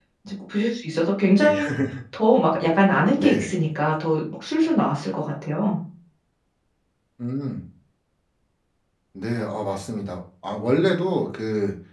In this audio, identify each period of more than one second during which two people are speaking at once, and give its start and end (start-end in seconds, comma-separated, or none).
none